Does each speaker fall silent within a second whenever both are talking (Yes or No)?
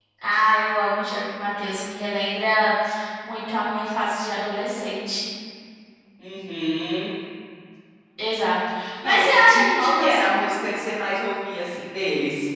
No